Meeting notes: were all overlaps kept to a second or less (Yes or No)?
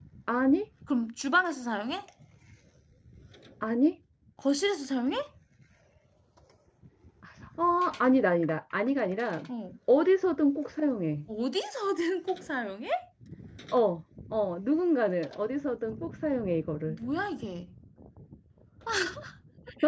Yes